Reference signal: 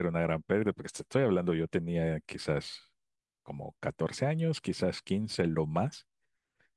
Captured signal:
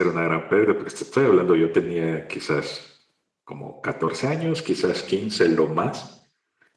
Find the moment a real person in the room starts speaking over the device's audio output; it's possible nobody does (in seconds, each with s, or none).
none